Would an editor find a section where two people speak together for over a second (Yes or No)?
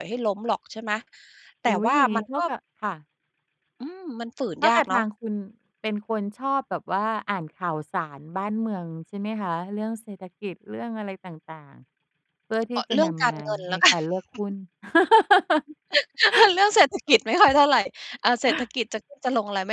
Yes